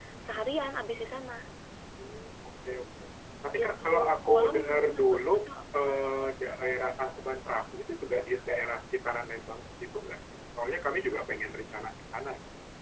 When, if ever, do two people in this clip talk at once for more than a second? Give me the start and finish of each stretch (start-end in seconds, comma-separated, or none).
3.6-5.3